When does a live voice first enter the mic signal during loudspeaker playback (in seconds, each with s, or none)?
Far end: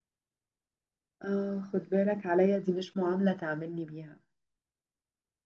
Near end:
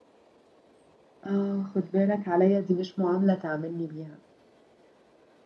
none